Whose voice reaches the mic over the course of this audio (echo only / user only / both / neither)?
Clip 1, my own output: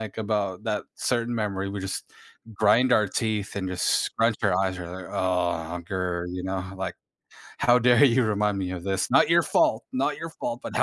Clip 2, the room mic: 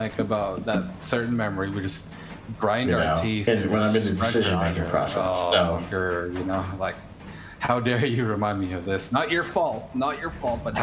both